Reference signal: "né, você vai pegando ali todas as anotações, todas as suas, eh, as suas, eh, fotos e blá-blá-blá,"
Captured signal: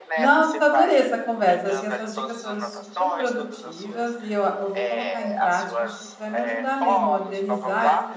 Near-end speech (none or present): present